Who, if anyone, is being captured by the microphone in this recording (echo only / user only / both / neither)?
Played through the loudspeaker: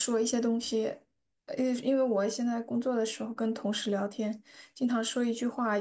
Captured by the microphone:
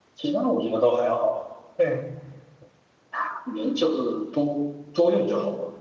user only